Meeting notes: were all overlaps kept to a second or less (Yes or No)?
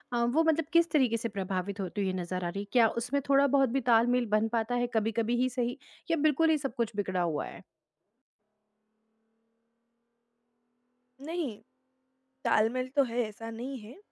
Yes